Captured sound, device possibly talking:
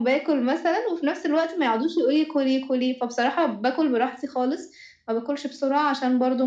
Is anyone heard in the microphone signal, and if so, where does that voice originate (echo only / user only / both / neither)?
echo only